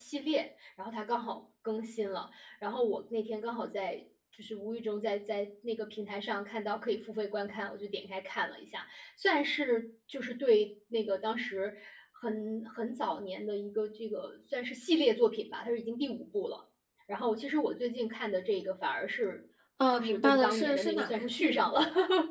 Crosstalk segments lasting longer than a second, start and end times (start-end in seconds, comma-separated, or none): 19.9-21.7